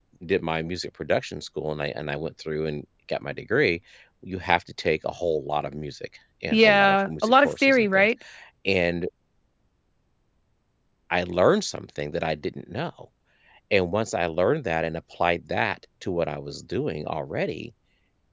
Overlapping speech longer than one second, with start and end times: 6.5-8.1

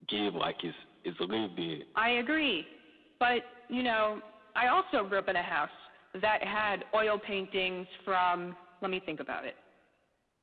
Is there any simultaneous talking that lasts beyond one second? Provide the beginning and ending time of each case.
none

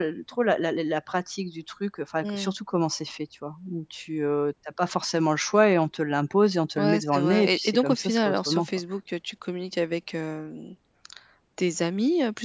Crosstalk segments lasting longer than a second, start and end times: 6.8-8.7

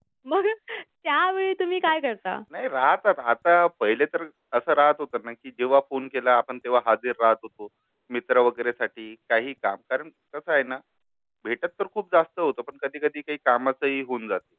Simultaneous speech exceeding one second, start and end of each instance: none

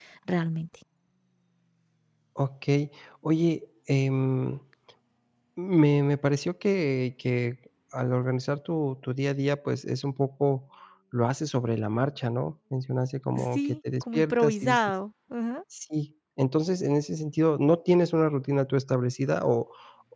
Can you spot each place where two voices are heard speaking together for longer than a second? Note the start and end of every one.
13.4-14.8

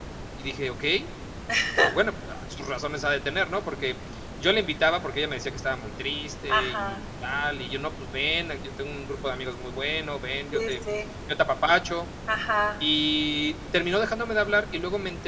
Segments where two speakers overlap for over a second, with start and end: none

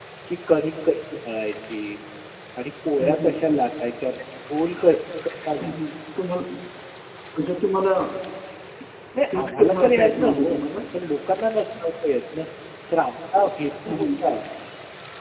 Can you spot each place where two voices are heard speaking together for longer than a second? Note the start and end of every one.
9.3-10.6

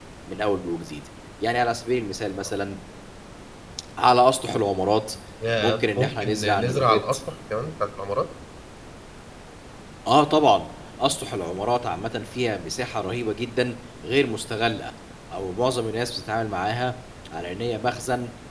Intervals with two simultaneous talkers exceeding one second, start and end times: 5.6-7.1

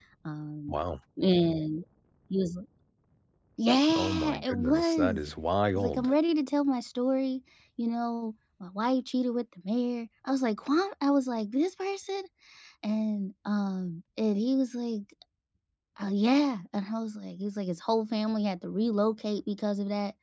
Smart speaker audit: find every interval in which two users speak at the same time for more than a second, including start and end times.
4.0-5.2

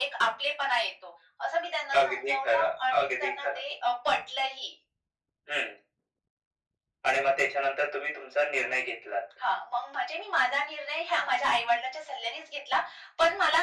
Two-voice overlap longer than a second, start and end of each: 2.0-3.6

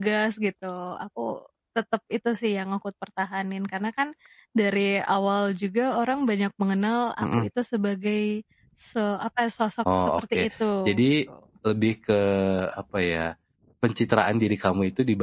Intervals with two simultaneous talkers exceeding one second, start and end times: none

